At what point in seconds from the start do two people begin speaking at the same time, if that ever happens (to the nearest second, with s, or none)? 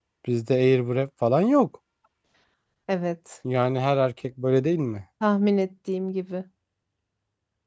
none